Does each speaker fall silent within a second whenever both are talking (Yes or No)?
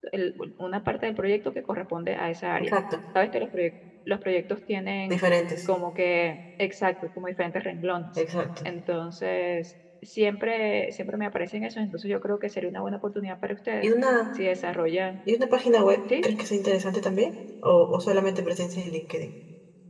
Yes